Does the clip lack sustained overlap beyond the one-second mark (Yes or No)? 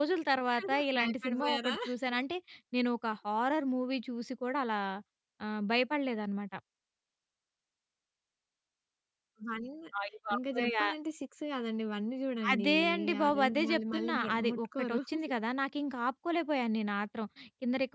No